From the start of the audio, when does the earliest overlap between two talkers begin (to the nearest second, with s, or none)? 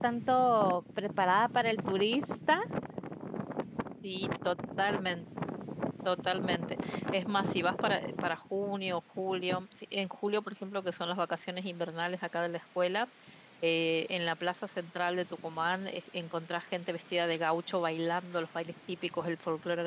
none